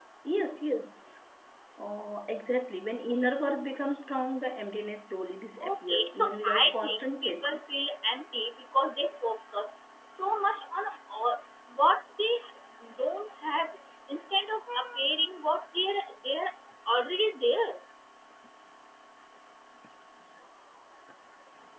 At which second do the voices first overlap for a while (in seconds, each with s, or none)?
5.6 s